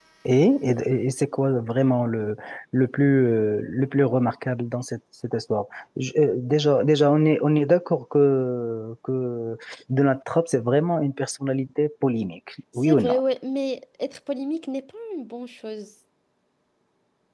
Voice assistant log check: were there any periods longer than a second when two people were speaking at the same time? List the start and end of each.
none

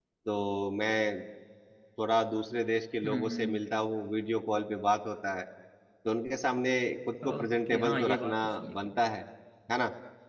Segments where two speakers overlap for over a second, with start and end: 7.2-8.8

